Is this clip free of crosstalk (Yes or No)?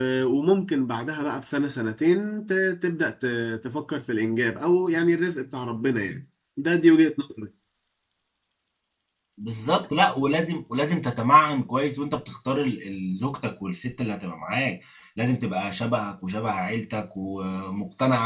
Yes